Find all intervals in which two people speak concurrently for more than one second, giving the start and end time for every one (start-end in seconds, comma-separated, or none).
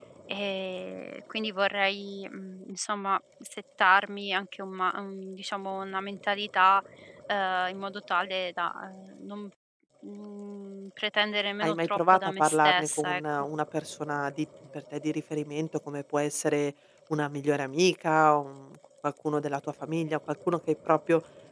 11.6-13.5